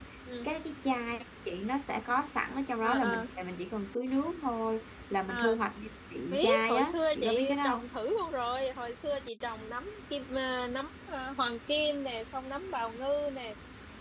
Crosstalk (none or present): present